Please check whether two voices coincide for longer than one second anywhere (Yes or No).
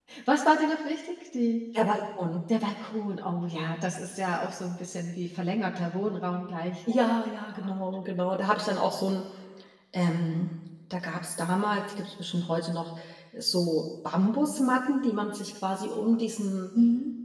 No